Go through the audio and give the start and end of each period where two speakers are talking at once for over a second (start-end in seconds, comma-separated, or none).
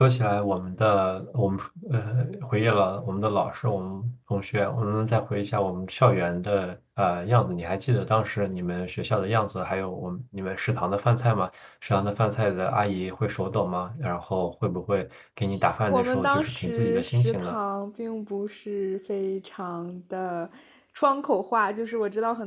15.9-17.6